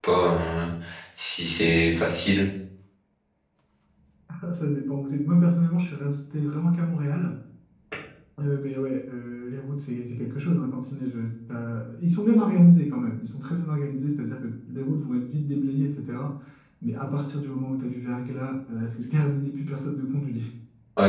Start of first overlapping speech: none

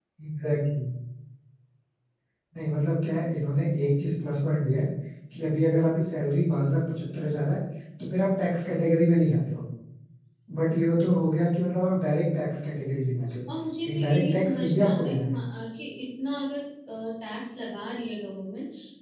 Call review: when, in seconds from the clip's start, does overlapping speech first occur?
13.9 s

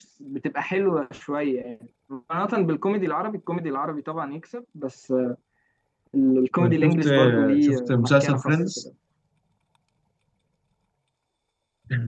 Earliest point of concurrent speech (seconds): 6.6 s

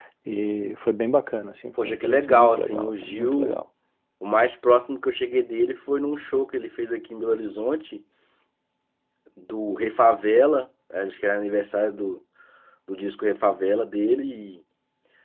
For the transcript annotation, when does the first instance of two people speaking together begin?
1.8 s

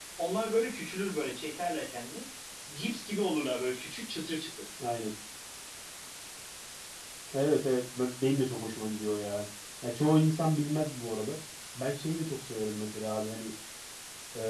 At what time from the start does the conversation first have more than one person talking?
none

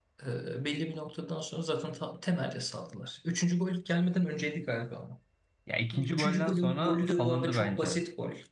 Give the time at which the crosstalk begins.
5.9 s

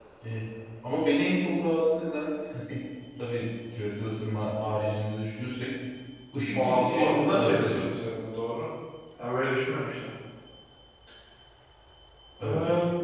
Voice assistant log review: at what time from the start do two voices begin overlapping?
6.5 s

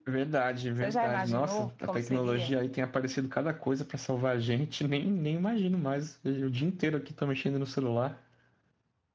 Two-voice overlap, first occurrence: 0.8 s

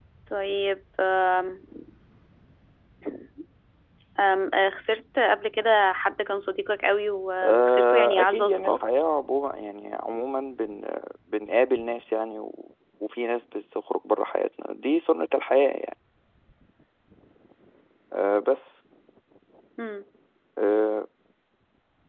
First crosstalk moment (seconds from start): 7.4 s

